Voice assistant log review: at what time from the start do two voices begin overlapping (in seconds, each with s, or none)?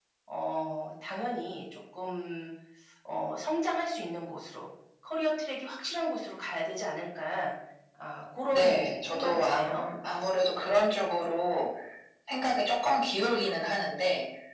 8.5 s